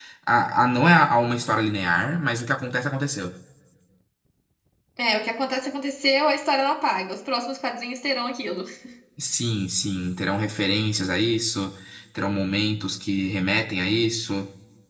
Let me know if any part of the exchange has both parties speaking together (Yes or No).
No